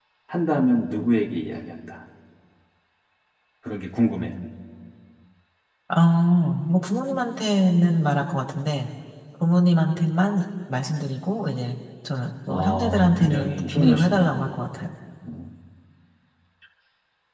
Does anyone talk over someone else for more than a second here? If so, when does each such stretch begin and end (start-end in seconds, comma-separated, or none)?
12.5-14.3